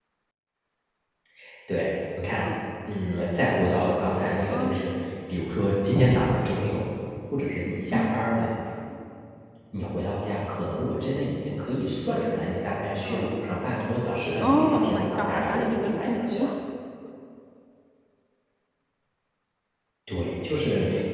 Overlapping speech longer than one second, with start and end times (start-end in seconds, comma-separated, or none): 14.4-16.5